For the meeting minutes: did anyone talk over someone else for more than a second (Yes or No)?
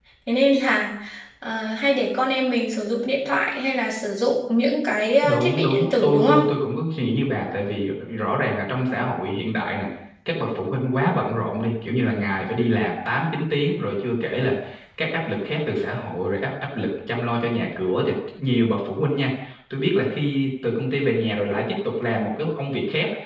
Yes